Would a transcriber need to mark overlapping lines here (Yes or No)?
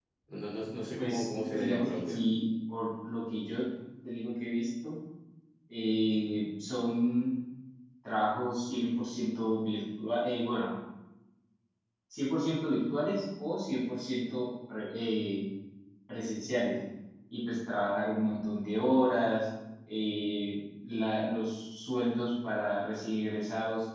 Yes